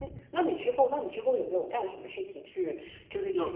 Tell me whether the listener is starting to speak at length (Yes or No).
No